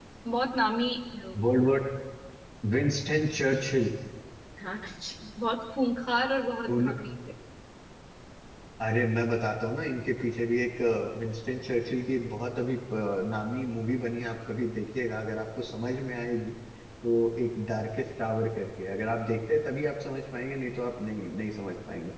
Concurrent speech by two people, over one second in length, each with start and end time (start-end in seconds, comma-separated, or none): none